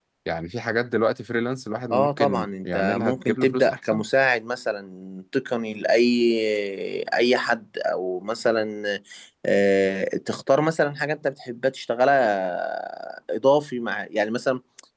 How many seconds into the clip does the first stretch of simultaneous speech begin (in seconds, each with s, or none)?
1.9 s